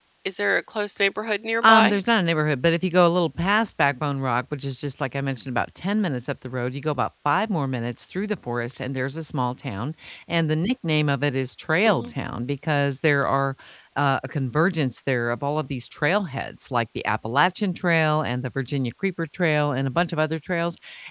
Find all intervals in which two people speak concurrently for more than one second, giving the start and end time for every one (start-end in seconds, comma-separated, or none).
none